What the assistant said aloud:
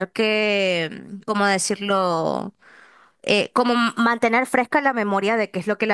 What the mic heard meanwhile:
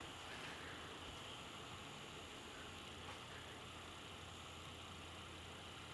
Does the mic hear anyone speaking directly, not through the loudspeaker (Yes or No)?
No